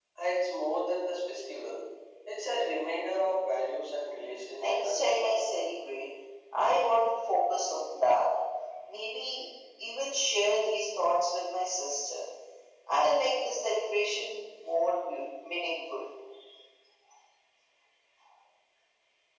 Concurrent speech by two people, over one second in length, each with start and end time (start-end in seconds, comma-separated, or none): 4.0-5.3